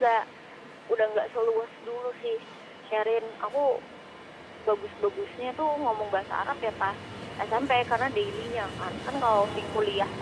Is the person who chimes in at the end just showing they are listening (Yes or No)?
Yes